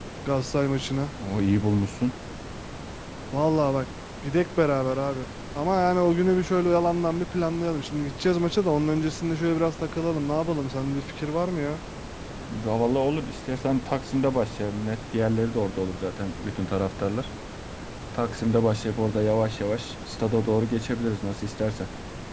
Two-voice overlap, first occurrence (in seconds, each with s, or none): none